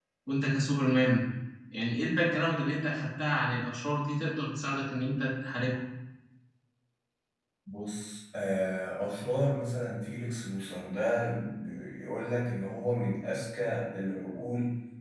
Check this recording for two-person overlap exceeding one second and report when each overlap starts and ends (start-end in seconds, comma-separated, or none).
none